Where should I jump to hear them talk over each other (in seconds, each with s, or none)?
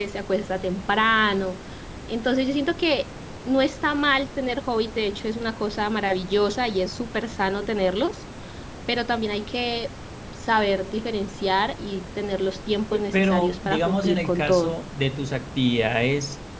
12.9 s